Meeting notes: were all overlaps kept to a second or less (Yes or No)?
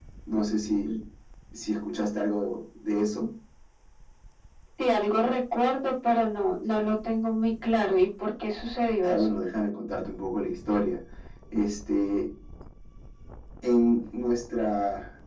Yes